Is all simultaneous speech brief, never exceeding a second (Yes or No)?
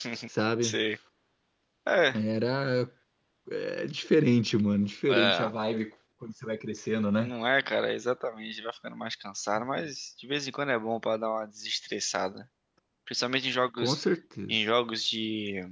Yes